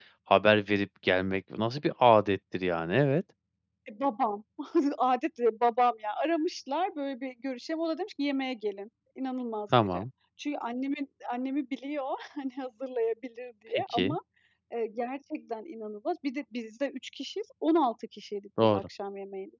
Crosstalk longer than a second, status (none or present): none